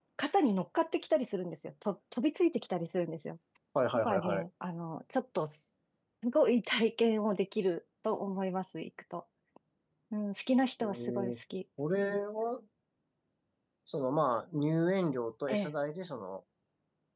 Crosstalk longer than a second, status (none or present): none